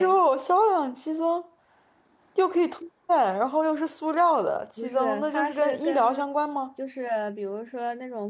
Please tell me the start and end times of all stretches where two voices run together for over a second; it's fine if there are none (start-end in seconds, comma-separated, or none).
4.8-6.2